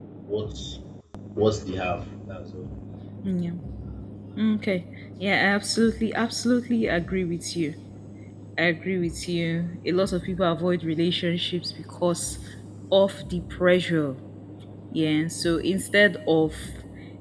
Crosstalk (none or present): none